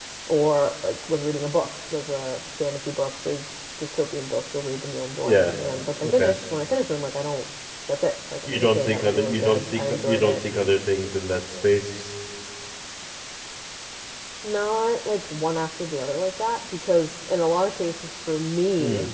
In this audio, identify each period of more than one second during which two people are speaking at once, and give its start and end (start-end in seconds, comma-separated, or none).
8.5-10.4